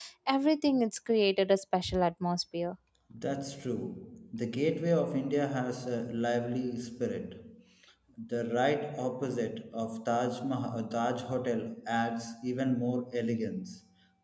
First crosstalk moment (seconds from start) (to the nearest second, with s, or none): none